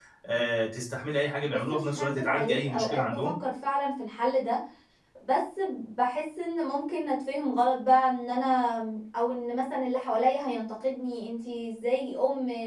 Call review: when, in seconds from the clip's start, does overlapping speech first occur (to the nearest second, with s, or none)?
2 s